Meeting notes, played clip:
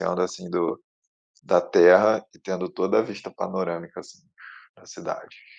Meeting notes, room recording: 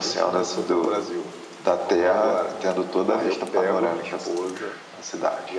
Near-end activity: present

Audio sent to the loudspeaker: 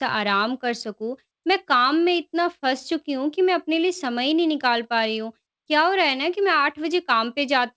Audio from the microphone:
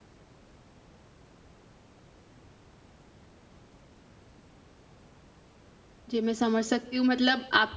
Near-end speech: present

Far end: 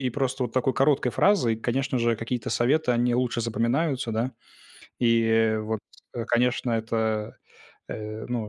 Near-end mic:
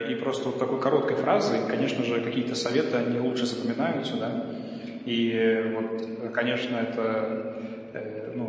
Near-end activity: none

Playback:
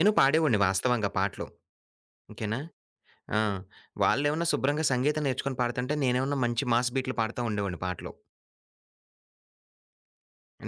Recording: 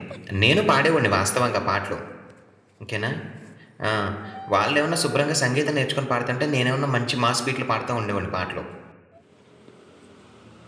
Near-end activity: none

